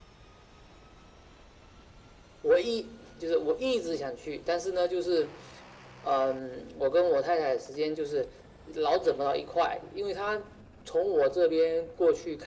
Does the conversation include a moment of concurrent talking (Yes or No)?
No